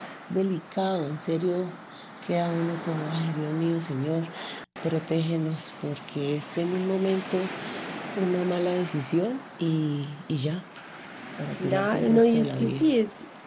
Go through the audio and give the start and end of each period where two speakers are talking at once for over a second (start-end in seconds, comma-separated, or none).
11.6-12.9